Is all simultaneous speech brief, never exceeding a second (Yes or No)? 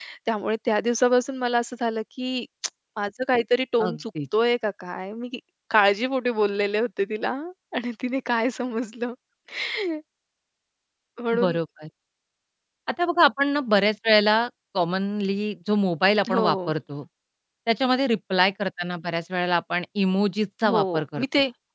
Yes